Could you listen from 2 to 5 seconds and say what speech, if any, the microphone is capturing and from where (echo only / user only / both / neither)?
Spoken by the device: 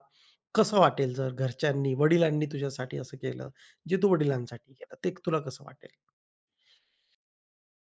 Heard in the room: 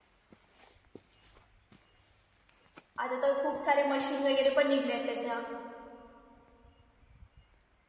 user only